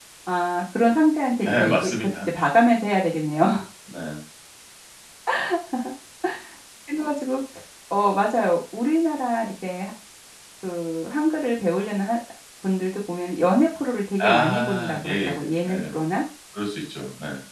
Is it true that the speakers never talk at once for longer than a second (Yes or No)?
No